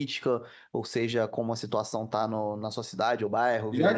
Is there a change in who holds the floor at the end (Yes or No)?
Yes